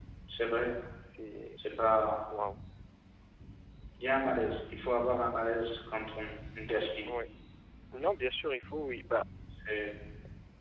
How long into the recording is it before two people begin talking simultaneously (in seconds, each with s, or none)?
none